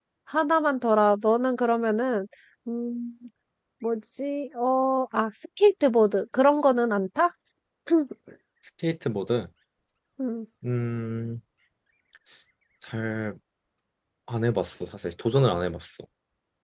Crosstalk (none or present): none